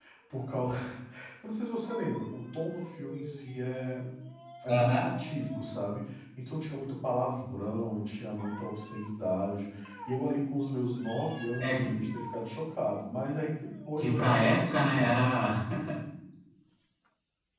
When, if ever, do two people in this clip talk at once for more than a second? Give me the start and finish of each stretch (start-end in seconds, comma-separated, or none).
14.0-15.2